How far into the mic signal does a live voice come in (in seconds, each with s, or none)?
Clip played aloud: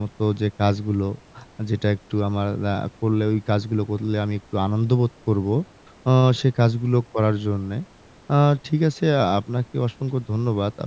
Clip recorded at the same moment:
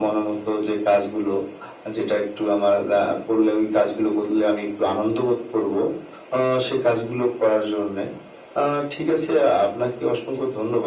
none